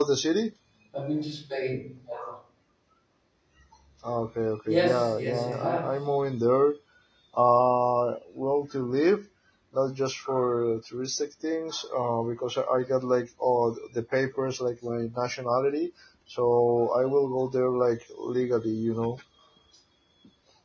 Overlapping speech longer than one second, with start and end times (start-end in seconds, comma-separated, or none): 4.7-5.9